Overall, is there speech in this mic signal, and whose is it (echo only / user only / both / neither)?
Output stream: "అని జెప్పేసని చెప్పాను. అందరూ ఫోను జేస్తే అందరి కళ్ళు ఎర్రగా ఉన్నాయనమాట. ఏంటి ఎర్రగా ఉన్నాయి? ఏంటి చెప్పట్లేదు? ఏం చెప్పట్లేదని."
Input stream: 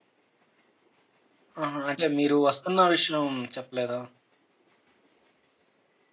user only